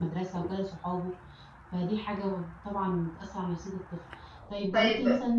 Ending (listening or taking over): listening